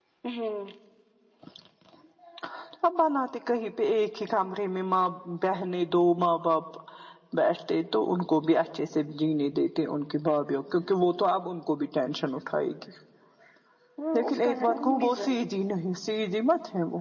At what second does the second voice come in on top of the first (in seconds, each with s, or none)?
14.2 s